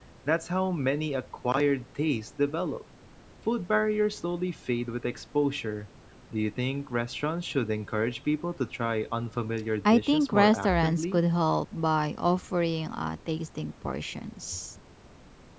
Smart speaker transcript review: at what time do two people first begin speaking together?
9.8 s

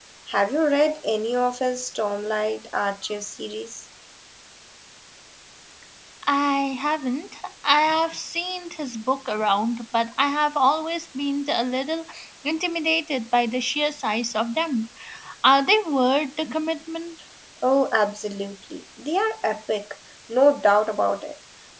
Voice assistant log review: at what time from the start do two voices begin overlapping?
none

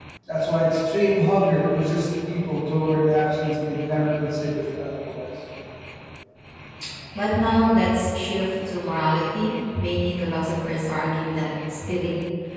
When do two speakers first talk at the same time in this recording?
none

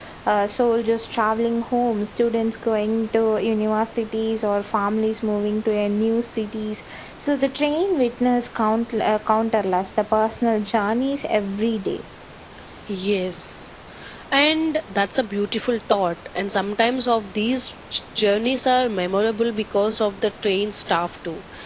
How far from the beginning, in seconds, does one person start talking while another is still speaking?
none

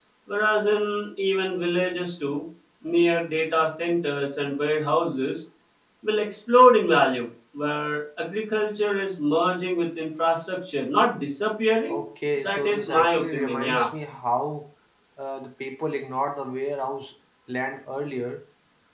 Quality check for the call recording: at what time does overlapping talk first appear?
12.4 s

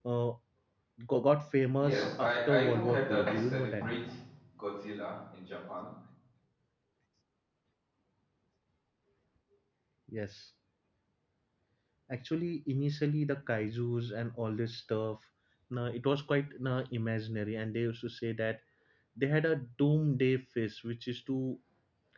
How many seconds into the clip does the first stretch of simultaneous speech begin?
1.8 s

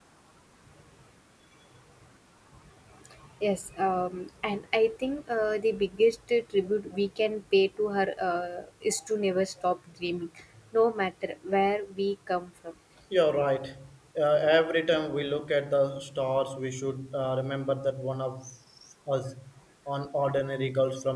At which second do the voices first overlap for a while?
none

